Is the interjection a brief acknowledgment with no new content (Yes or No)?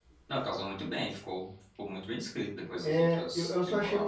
No